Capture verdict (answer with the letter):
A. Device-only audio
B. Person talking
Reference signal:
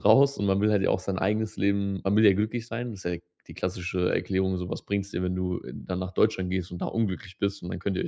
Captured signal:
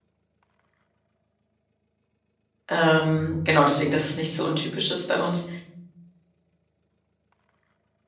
B